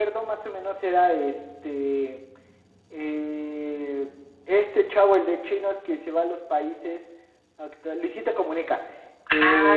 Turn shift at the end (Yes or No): No